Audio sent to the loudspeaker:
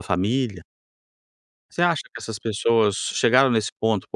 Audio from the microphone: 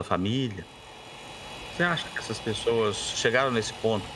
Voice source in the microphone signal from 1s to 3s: echo only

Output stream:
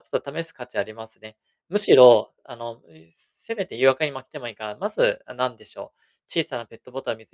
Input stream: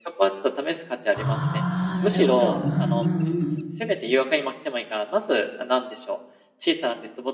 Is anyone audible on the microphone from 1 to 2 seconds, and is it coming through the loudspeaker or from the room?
both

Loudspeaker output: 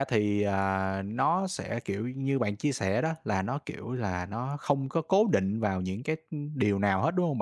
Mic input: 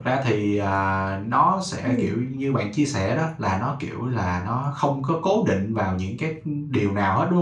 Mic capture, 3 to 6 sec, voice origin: echo only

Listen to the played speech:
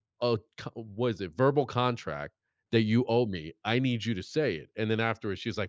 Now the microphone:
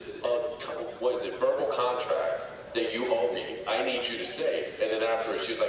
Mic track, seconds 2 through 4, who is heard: echo only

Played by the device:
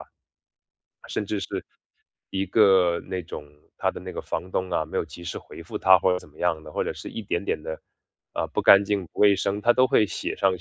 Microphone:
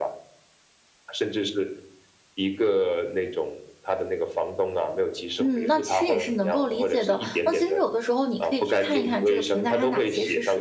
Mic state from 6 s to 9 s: both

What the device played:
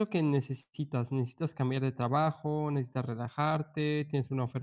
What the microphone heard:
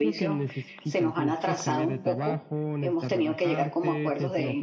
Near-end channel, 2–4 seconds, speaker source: both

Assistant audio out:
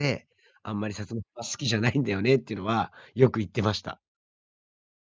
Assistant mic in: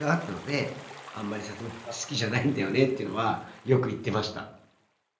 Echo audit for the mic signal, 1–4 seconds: echo only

